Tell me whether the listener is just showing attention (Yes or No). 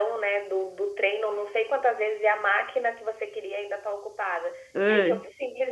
Yes